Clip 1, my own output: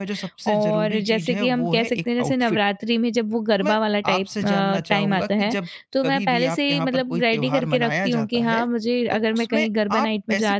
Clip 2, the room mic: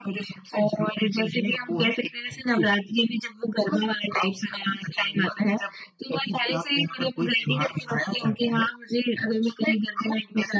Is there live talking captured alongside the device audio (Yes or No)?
No